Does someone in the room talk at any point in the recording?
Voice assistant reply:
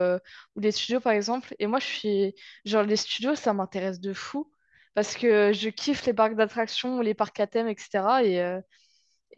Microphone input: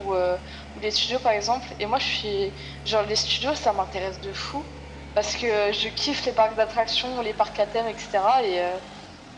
No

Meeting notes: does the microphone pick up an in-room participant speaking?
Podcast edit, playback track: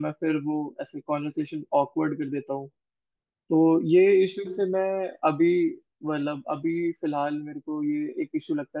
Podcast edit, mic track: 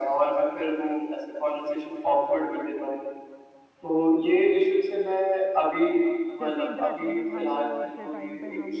Yes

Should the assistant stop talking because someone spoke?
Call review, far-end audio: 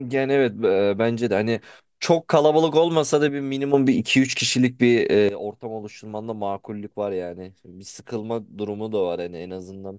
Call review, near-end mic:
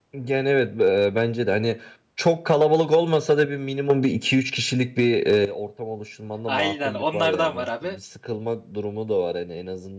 Yes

